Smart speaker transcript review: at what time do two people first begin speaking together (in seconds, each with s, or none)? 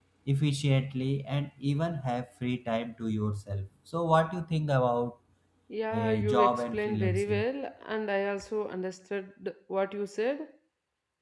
5.9 s